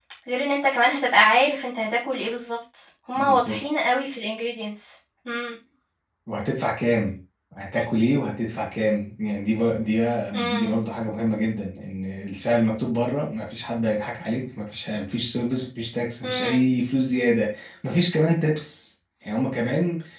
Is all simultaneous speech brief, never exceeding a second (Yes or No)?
Yes